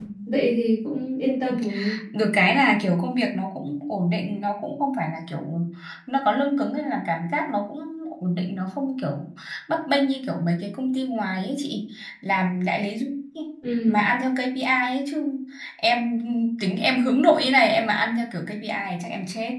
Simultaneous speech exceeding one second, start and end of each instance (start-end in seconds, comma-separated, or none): none